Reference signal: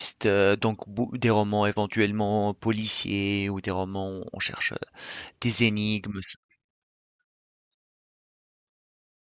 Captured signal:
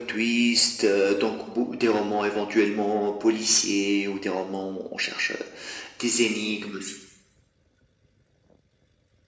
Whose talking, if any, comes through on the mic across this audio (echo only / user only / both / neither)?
echo only